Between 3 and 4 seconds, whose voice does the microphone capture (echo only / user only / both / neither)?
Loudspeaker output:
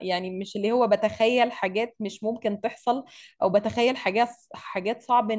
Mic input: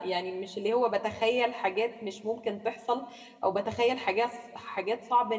echo only